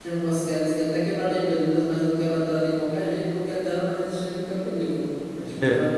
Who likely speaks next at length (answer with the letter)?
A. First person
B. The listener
A